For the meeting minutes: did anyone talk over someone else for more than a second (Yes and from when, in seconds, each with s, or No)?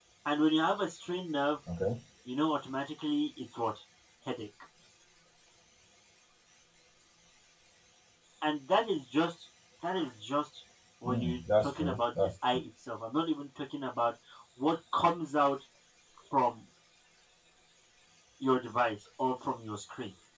Yes, from 11.0 s